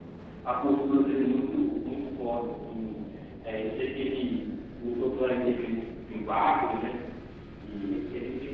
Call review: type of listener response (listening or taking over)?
taking over